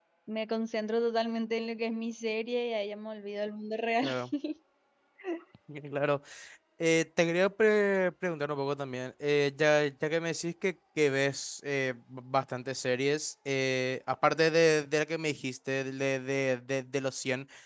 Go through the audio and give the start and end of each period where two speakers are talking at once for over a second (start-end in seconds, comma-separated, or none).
none